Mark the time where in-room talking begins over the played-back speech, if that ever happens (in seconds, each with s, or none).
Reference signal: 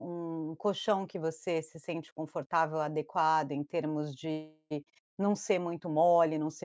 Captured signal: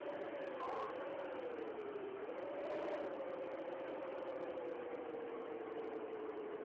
none